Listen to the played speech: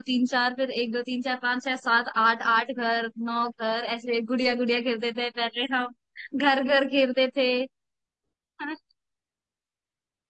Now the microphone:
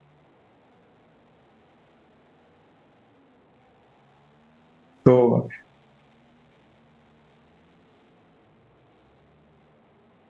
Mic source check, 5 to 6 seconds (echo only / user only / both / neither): user only